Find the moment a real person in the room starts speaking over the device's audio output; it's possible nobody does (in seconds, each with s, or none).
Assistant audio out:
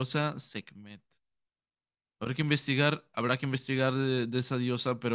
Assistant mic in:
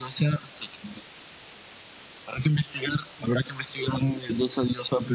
none